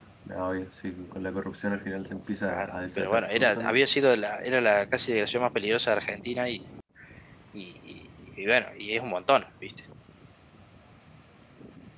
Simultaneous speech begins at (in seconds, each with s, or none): 2.5 s